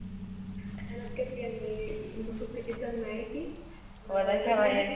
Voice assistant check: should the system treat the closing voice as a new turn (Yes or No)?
No